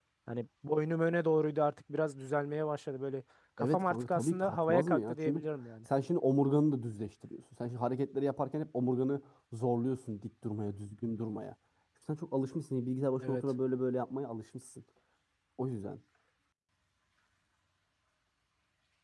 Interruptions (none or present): present